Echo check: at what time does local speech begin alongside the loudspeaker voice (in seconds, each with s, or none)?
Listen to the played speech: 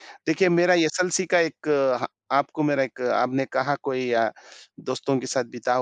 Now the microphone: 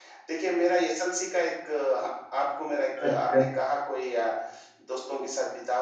3.0 s